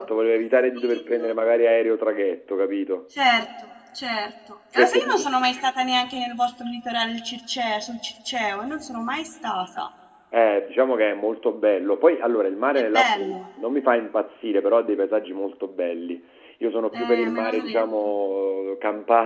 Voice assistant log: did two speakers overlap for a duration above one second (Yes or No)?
Yes